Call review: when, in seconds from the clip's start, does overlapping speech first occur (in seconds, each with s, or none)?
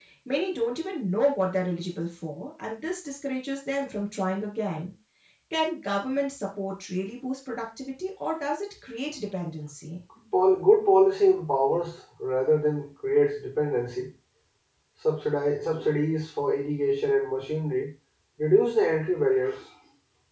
none